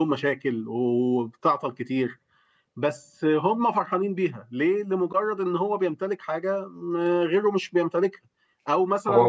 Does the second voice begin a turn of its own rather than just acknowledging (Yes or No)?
No